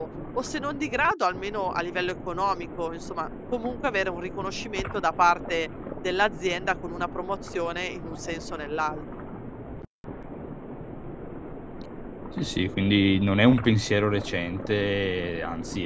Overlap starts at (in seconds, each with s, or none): none